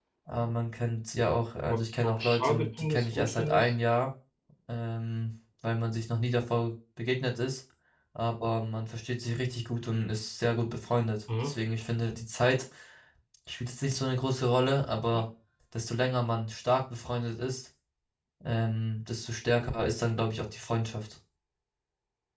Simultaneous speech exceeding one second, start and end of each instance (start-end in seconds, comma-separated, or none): 1.7-3.7